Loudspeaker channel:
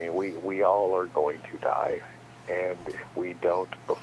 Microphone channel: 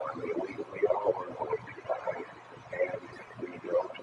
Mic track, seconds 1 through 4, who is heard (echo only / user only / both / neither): echo only